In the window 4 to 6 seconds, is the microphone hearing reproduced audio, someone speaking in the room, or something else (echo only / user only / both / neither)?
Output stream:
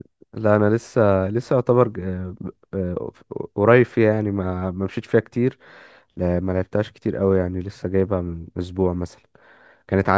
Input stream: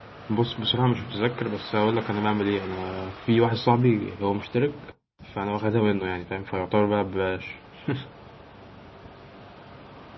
user only